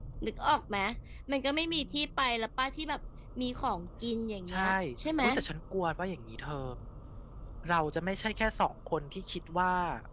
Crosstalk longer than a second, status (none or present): none